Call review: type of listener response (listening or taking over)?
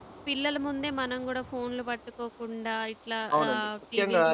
taking over